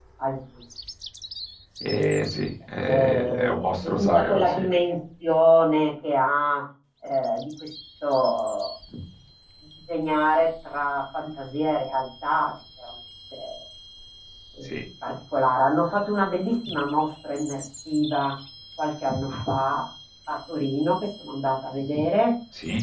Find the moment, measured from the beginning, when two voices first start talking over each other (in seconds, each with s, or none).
2.8 s